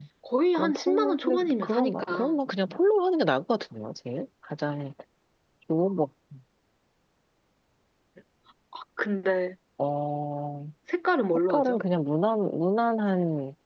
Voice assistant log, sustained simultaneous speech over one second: present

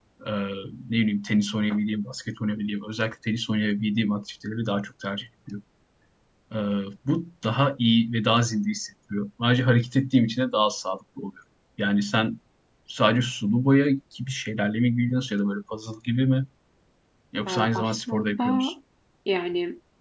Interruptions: present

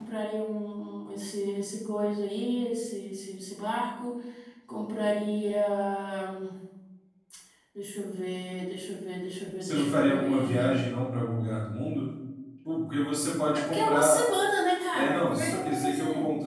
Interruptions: present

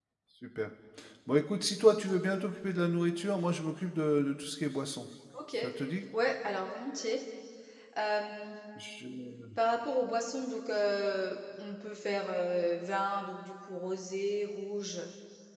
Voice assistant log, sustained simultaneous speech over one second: none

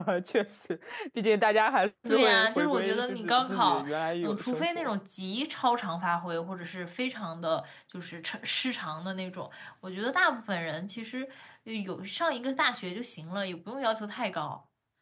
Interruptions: present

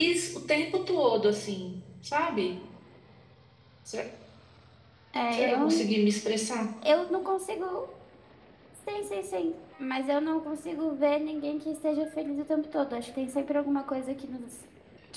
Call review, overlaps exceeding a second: none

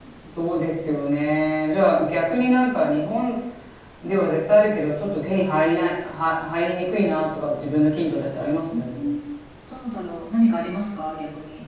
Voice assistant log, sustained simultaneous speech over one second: none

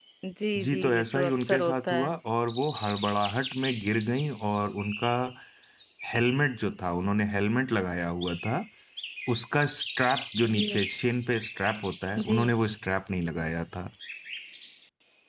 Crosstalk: present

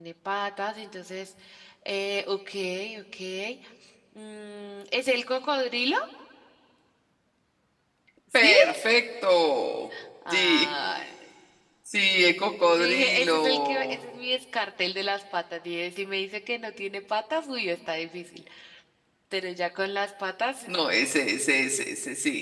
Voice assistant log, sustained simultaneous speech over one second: present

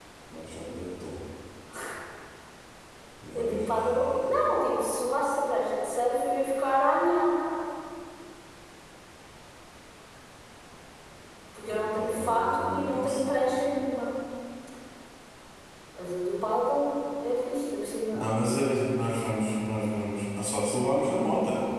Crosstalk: present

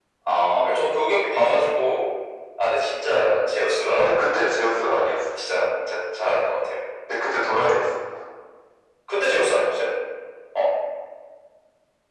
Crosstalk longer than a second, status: none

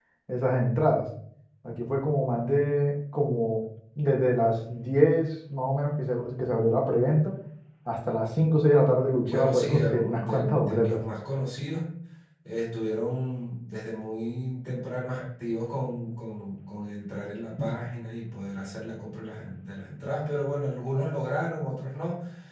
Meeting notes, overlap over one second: present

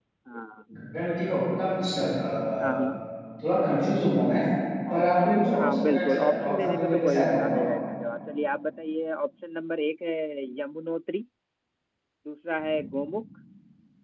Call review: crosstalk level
present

